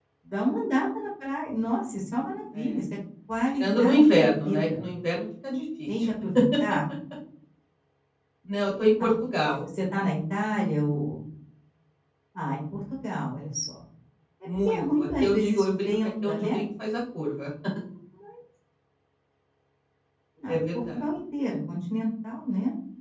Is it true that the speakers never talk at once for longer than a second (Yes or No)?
No